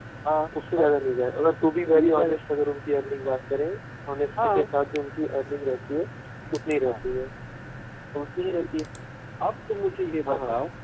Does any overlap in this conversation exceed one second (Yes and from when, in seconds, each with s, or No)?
No